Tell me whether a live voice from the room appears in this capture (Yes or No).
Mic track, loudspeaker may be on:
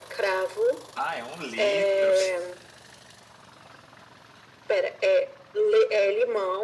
Yes